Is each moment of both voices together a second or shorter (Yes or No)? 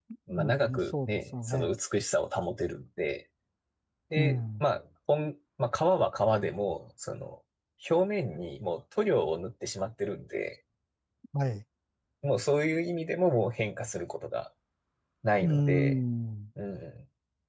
No